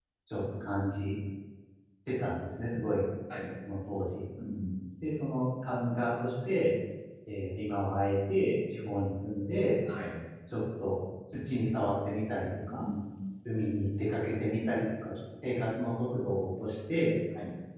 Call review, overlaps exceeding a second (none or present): none